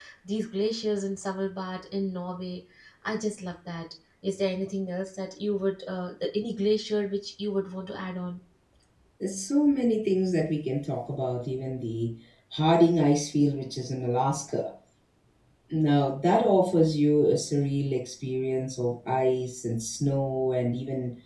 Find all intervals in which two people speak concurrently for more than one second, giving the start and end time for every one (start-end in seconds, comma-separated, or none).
none